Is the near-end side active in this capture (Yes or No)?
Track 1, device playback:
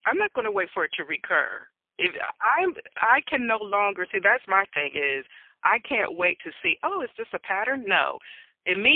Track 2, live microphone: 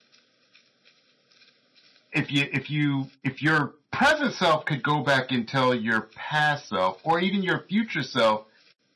Yes